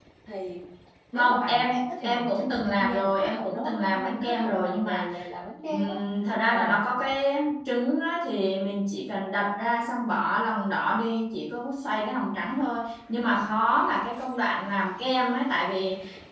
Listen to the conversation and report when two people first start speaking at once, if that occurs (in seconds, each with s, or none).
1.1 s